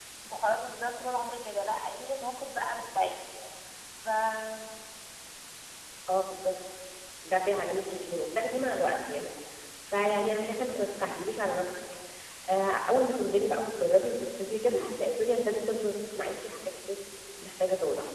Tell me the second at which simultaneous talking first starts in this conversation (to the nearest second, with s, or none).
none